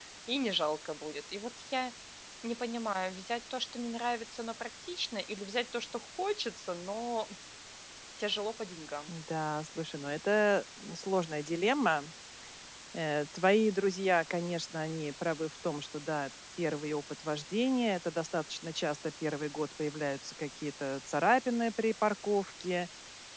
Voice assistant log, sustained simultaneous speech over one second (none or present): none